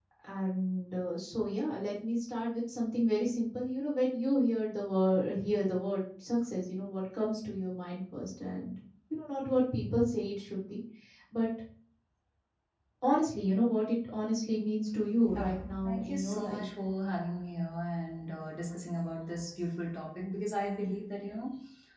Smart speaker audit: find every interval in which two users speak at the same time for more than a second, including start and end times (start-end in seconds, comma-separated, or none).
15.4-16.6